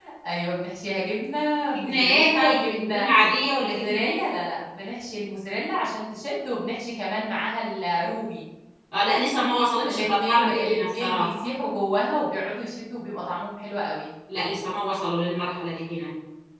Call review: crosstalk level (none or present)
present